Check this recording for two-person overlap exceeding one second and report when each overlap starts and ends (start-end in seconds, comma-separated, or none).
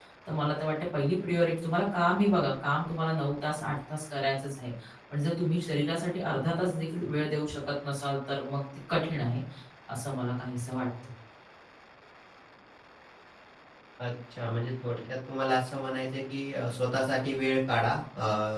none